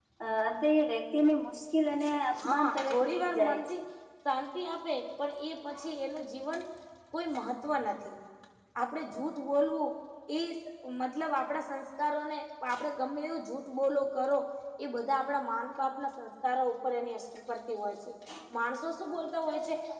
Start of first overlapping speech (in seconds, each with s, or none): 2.4 s